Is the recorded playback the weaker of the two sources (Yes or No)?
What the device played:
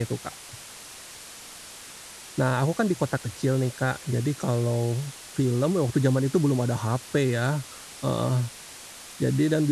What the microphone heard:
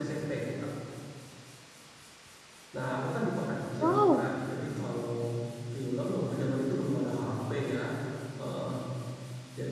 Yes